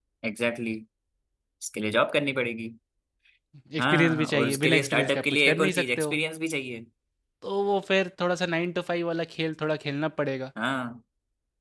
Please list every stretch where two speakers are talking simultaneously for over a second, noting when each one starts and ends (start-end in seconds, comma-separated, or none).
3.8-6.1